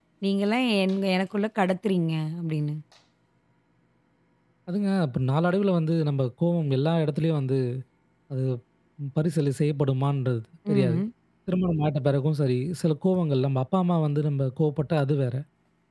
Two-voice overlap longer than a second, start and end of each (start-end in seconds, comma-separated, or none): none